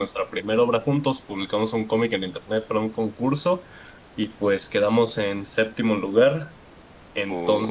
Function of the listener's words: listening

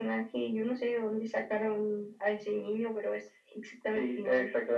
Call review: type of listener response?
taking over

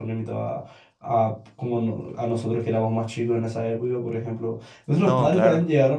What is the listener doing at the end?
listening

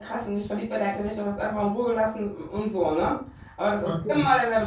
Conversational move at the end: listening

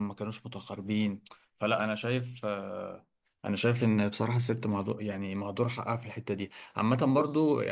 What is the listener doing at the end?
listening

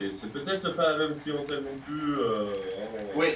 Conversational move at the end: taking over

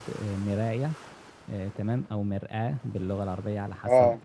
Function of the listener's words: listening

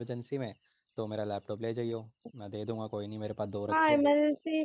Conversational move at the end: taking over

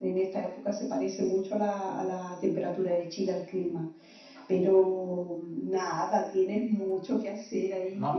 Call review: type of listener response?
taking over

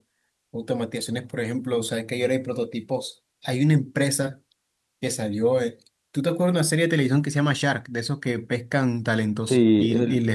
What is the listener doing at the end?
listening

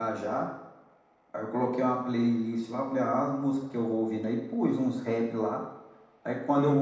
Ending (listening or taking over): listening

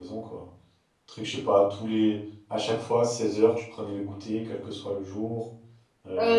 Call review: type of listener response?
taking over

